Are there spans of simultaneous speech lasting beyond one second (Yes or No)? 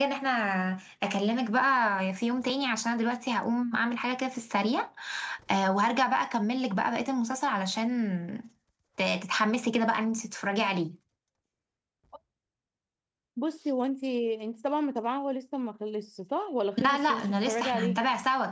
Yes